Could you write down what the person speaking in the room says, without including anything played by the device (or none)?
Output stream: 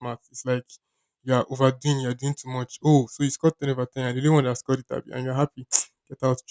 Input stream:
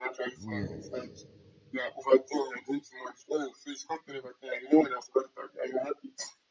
Yes.